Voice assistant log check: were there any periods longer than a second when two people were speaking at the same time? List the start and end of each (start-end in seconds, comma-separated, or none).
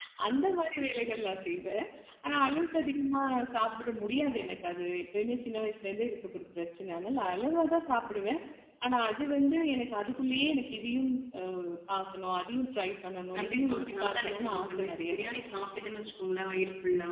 13.3-15.4